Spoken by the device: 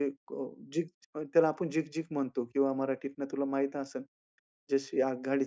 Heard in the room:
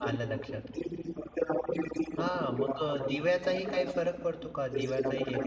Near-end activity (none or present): present